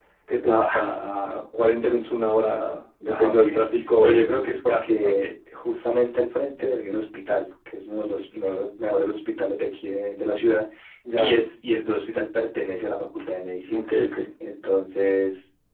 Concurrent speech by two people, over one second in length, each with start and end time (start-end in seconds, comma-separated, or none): 4.0-5.3